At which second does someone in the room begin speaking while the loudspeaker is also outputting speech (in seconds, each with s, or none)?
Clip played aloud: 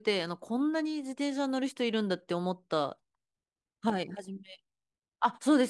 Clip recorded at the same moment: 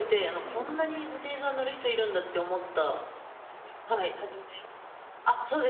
0.4 s